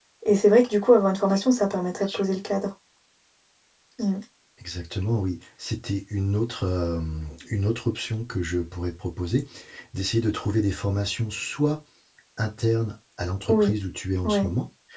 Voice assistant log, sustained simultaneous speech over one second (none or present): none